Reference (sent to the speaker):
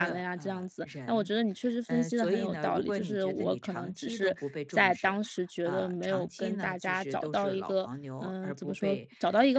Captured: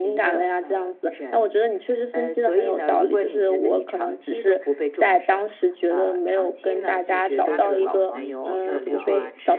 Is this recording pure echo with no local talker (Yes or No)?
No